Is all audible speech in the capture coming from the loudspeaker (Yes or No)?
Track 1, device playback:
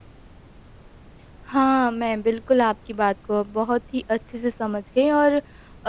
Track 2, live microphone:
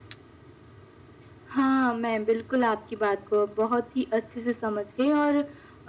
Yes